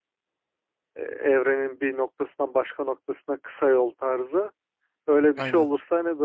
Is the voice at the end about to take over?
No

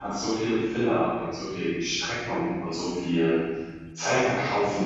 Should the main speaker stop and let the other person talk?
No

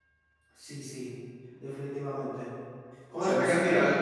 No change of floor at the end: No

